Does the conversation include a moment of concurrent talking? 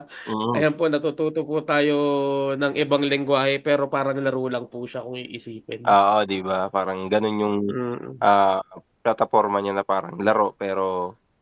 No

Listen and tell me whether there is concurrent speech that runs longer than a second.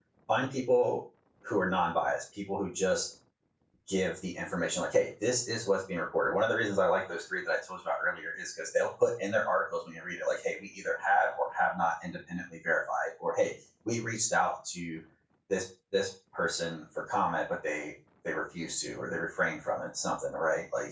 No

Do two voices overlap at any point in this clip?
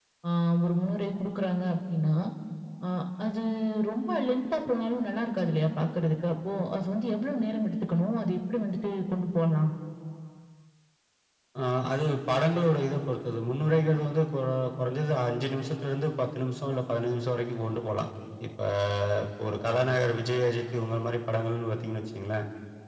No

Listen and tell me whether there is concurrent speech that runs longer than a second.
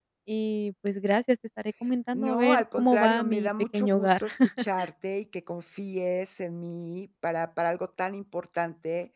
Yes, from 2.1 s

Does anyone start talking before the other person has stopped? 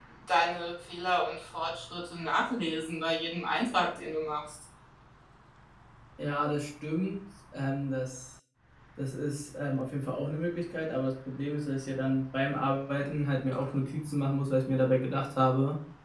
No

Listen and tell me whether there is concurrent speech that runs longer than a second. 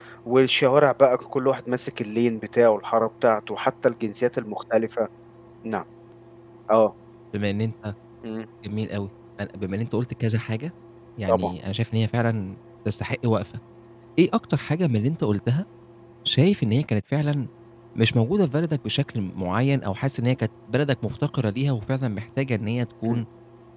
No

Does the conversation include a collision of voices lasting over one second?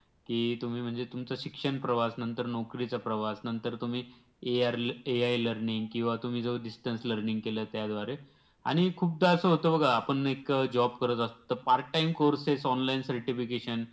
No

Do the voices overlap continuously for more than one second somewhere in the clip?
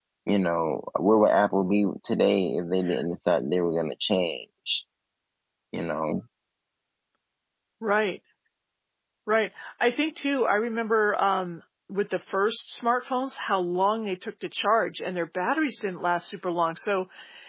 No

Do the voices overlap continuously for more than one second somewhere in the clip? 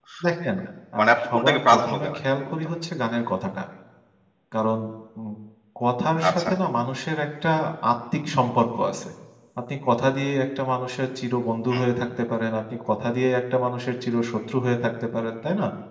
Yes, from 1.0 s

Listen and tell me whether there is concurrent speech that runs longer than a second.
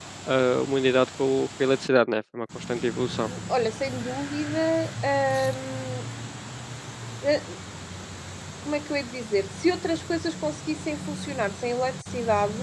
No

